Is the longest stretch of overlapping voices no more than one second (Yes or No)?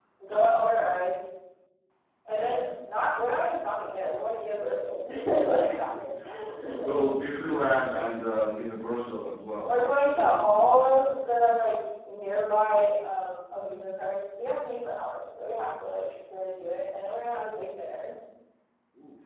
No